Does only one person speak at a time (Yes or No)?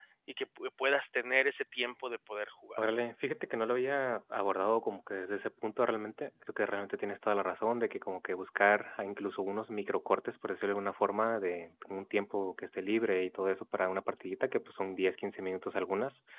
Yes